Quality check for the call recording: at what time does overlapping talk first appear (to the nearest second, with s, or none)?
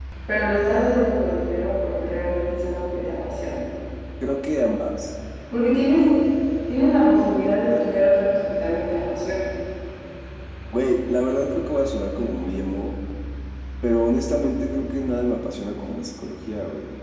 none